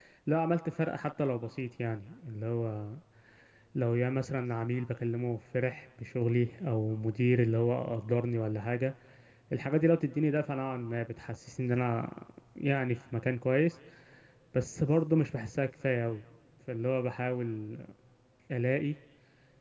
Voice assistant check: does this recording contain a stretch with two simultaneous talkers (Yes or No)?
No